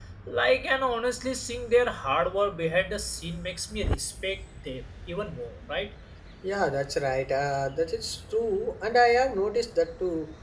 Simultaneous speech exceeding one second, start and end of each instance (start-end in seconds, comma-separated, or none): none